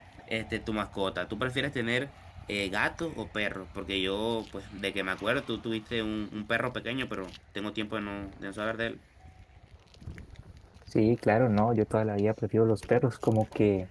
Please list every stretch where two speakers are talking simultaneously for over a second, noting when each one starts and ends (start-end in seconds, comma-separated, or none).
none